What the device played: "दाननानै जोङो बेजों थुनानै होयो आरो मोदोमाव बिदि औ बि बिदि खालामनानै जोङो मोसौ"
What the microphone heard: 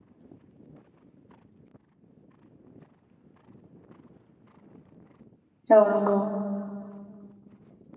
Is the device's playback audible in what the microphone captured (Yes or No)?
No